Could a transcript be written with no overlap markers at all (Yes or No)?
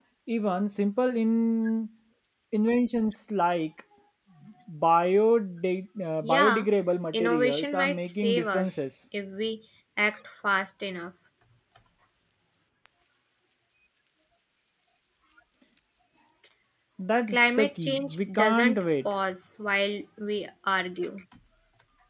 No